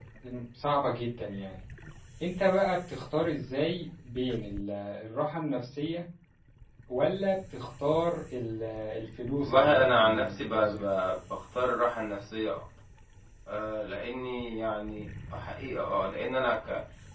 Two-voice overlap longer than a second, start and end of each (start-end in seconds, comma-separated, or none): 9.4-10.8